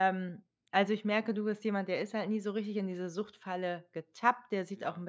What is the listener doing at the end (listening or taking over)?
listening